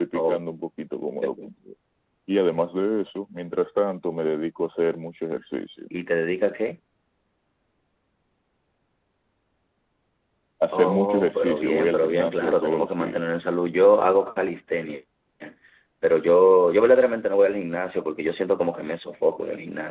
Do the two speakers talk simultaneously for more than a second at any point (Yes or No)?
Yes